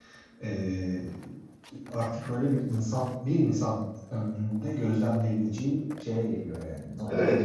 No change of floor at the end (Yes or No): No